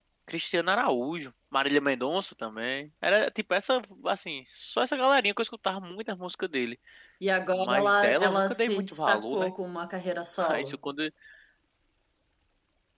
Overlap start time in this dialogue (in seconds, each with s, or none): 7.5 s